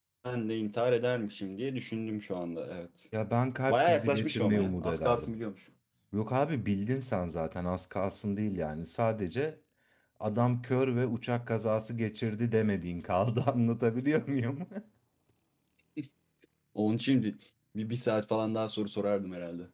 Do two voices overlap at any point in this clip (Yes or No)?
Yes